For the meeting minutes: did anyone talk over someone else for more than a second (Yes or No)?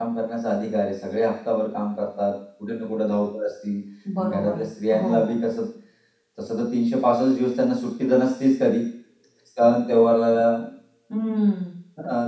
Yes